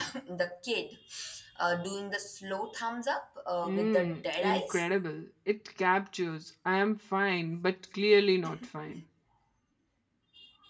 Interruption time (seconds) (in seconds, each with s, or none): 3.6 s